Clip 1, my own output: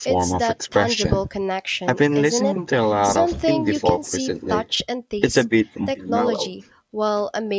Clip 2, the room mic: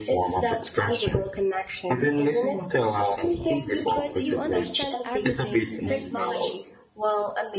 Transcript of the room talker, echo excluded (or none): but you understand everything they're saying.